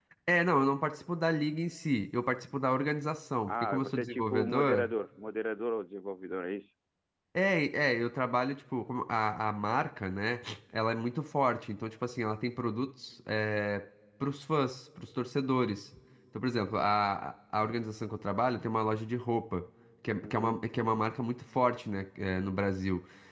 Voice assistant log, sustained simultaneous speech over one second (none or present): present